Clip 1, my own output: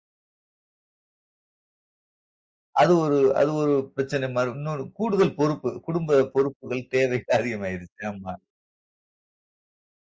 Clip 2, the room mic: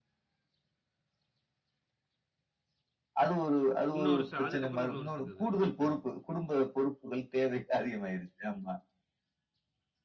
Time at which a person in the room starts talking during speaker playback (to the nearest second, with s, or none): 4 s